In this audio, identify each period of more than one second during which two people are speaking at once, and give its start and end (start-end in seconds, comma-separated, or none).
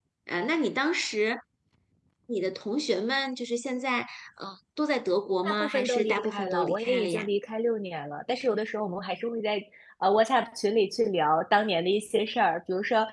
5.4-7.3